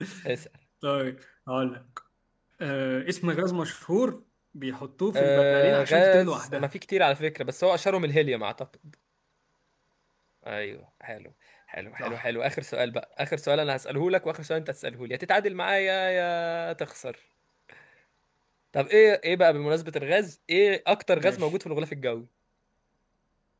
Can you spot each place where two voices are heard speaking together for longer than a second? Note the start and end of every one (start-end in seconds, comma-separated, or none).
5.2-6.7